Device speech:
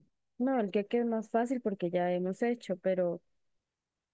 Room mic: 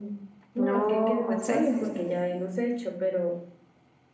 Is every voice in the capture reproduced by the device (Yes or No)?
No